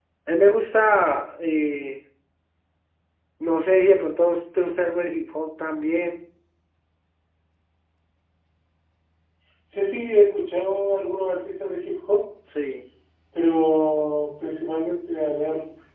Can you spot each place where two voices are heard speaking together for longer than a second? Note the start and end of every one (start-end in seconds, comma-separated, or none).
none